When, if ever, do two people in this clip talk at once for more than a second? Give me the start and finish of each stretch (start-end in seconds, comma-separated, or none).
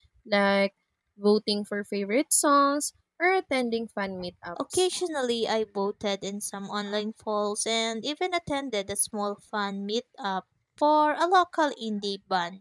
none